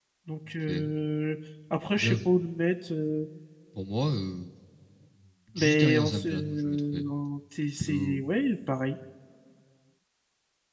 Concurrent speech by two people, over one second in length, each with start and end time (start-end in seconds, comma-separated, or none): 5.6-7.0